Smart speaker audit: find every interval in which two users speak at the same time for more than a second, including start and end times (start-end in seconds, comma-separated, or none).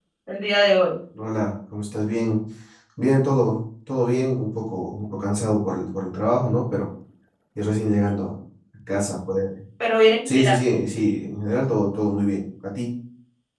none